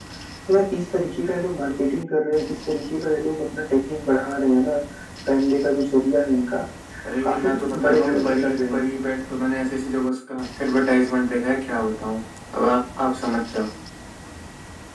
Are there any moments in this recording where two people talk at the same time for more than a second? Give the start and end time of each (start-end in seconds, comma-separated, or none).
7.2-8.8